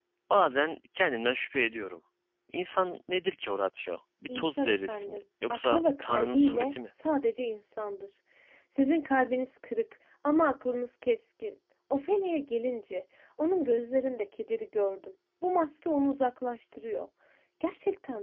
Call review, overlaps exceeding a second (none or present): present